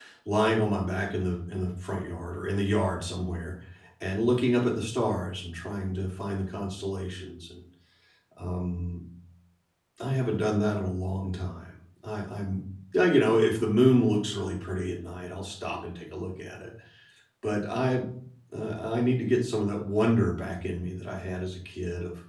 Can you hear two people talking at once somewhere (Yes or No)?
No